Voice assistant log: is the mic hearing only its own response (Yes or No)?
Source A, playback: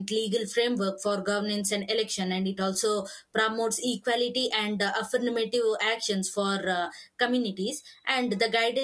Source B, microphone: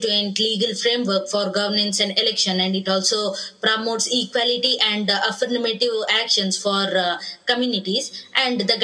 Yes